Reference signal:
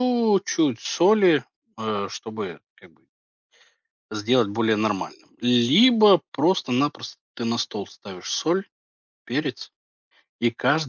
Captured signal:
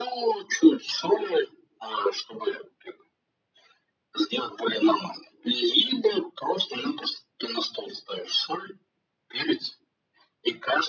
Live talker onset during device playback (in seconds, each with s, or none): none